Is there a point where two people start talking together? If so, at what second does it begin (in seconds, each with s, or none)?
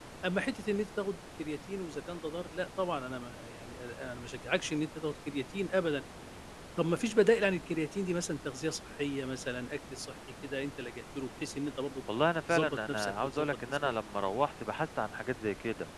12.5 s